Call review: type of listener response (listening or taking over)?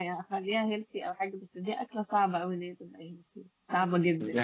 taking over